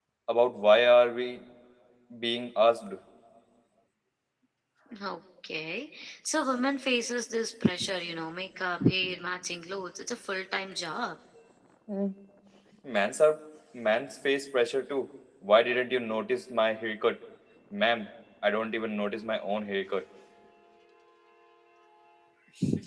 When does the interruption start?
none

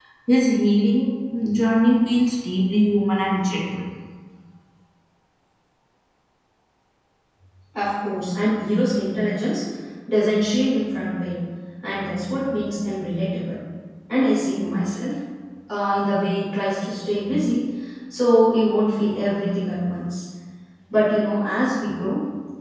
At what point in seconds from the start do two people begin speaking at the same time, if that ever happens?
none

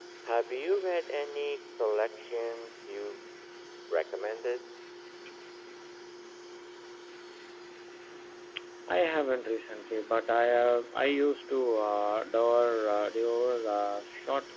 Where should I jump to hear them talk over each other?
none

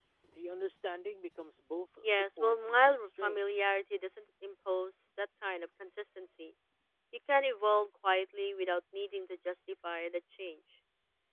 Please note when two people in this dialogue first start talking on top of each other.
2.0 s

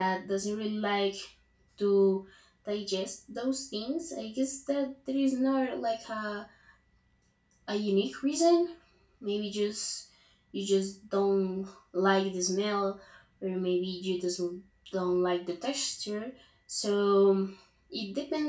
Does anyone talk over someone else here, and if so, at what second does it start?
none

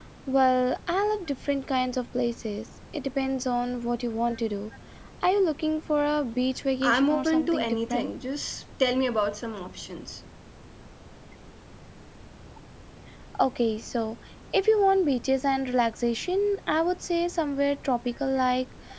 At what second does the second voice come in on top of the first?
6.8 s

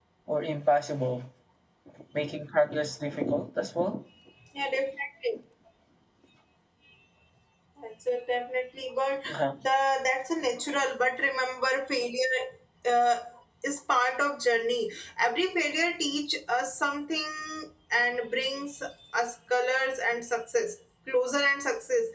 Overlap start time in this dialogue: none

